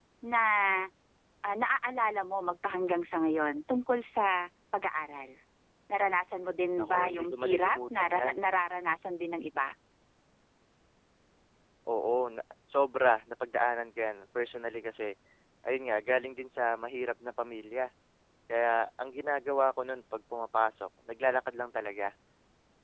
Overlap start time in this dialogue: 6.8 s

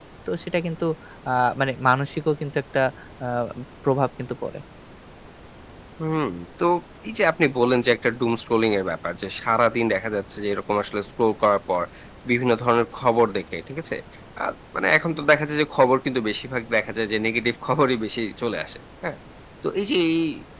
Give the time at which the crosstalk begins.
none

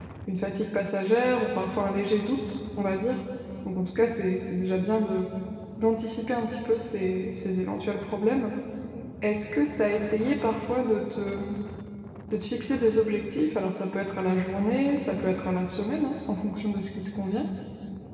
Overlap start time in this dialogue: none

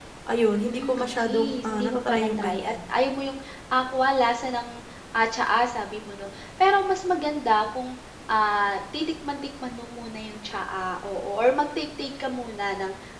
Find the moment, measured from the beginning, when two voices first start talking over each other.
0.5 s

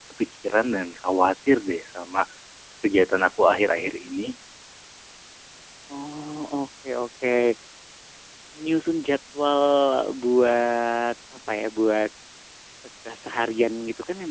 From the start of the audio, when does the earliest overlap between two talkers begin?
none

